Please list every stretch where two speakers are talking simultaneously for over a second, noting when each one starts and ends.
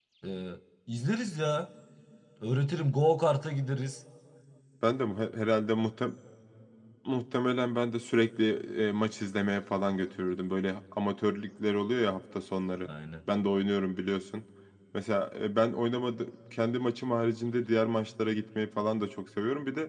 none

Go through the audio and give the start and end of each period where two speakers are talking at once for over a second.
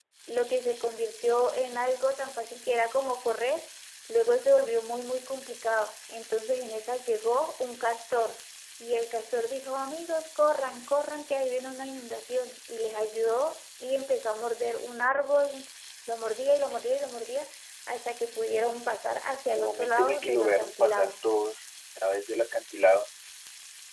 19.6-21.1

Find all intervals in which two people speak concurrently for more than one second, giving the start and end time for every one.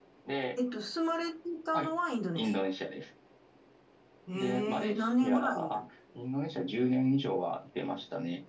4.3-5.7

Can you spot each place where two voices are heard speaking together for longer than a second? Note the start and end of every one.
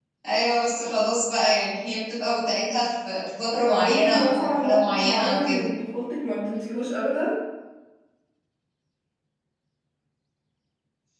3.6-5.7

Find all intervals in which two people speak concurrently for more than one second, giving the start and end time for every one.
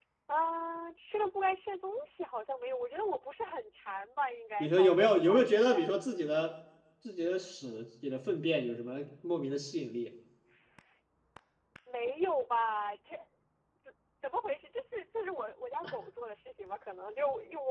4.6-5.8

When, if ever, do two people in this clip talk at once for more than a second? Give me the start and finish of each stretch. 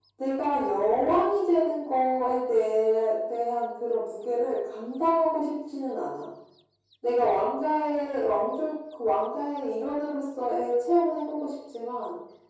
none

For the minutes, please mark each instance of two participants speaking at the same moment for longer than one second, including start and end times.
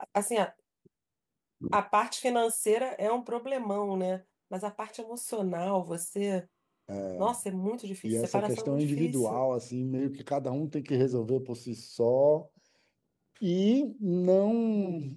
8.0-9.4

